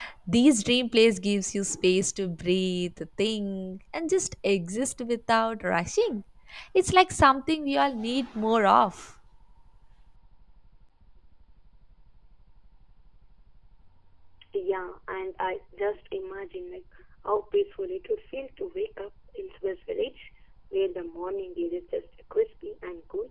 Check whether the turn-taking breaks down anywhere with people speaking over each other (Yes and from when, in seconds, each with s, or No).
No